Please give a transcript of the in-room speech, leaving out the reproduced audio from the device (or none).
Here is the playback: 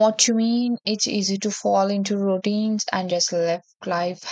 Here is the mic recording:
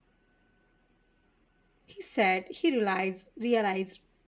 He said he realized, realized